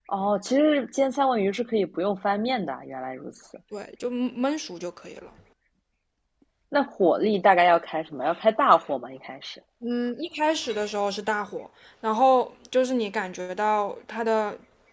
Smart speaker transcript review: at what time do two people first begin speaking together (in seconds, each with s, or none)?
none